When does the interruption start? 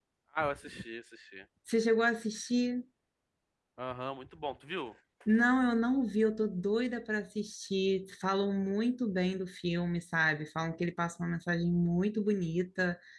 none

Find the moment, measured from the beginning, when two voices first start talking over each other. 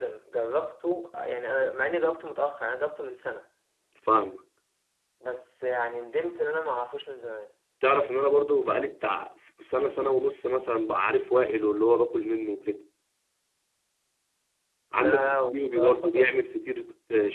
15 s

